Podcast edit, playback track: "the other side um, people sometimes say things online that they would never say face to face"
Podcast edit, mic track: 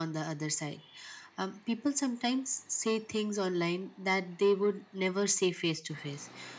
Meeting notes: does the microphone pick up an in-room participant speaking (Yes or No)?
No